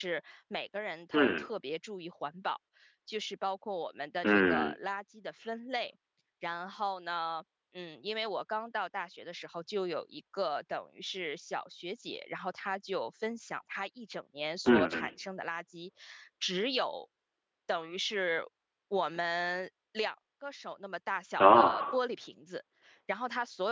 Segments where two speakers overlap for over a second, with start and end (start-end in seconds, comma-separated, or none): none